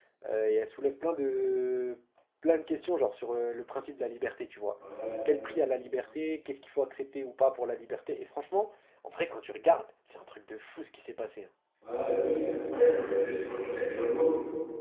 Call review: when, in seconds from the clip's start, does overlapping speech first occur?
none

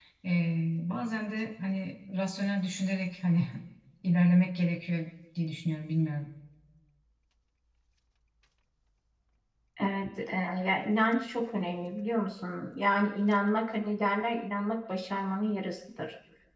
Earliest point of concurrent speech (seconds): none

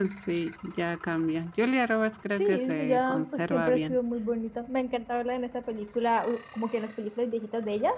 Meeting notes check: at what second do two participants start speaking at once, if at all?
2.4 s

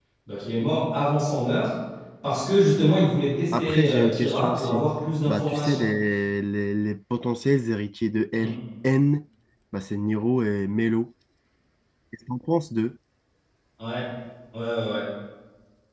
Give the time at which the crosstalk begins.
3.5 s

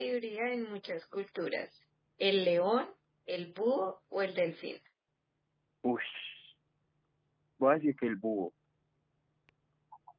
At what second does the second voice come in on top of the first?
none

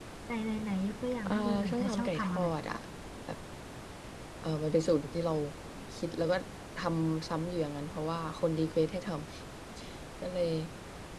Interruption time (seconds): 1.3 s

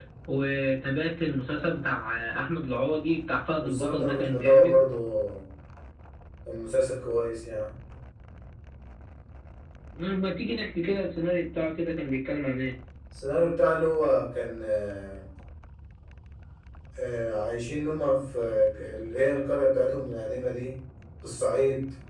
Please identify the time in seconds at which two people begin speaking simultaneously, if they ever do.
3.6 s

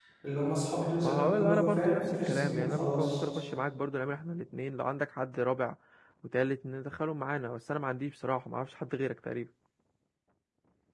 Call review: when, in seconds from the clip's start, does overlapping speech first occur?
1.0 s

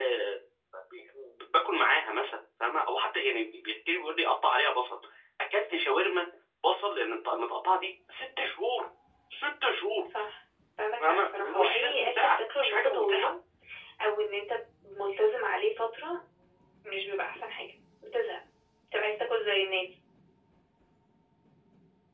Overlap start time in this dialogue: 11.0 s

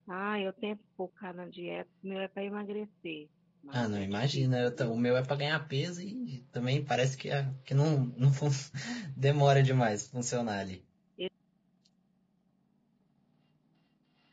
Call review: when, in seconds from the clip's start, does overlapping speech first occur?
3.7 s

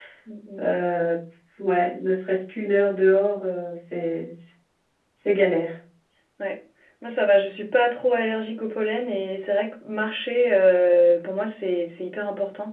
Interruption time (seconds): none

